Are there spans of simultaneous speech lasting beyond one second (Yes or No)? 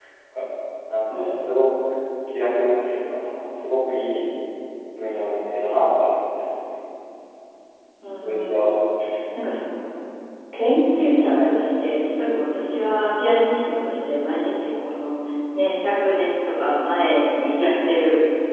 No